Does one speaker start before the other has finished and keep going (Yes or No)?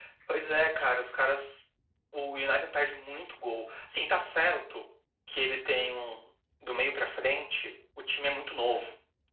No